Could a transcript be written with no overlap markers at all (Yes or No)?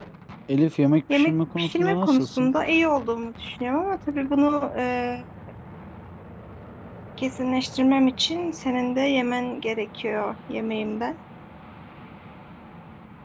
No